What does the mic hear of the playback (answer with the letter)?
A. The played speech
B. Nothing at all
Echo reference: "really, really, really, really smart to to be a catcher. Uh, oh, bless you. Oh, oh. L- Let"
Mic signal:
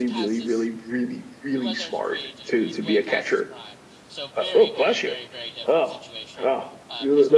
A